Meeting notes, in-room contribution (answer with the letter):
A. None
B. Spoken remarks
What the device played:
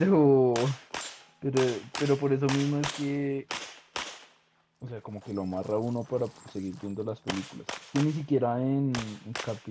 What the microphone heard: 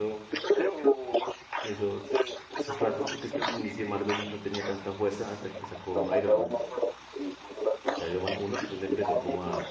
B